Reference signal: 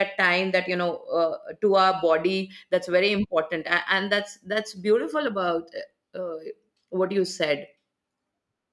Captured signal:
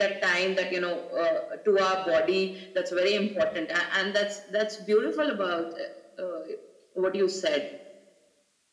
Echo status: present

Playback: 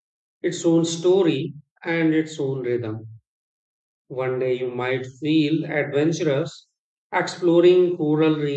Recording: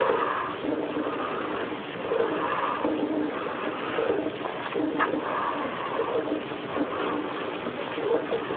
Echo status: none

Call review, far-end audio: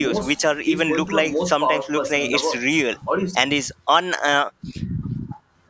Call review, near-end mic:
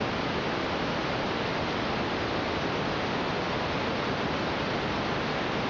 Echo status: none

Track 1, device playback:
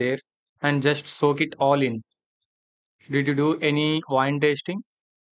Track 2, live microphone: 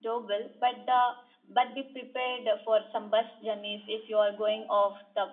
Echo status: none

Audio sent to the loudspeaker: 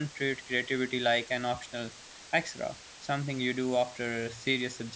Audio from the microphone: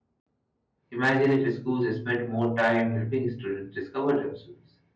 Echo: none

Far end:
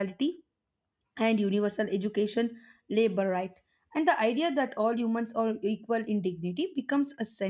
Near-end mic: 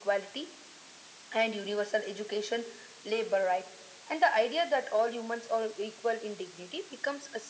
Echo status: present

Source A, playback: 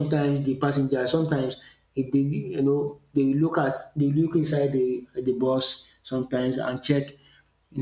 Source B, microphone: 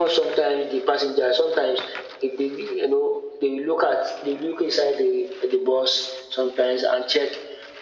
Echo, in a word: present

